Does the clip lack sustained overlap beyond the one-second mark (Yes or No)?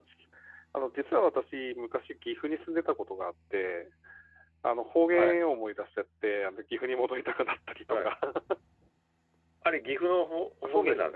Yes